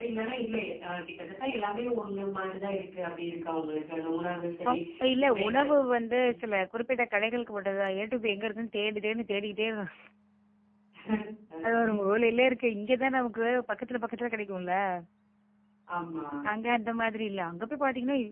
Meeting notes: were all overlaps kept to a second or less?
Yes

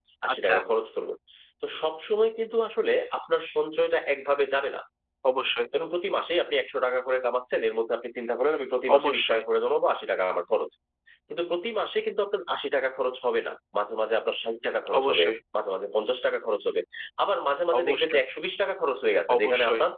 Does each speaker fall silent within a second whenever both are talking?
Yes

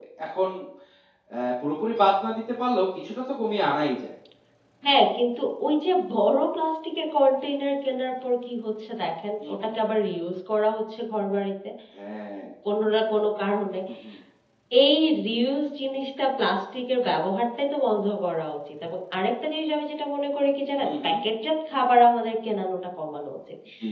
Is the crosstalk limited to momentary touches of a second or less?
Yes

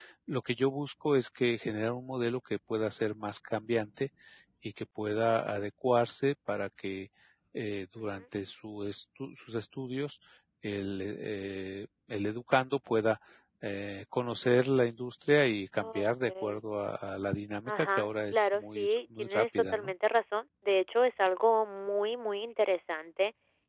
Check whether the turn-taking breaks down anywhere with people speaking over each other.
Yes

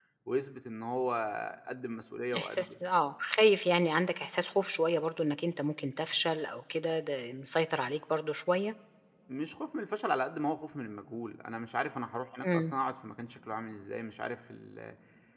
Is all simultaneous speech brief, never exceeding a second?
Yes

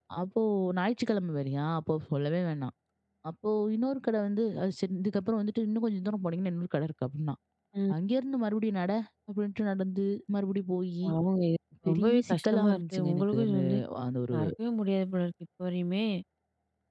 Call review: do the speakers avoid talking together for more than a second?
No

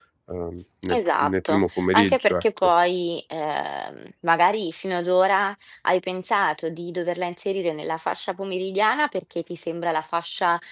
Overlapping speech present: Yes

